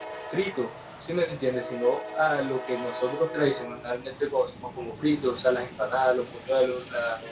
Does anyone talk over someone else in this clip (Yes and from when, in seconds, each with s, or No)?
No